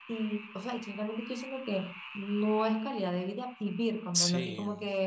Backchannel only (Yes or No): No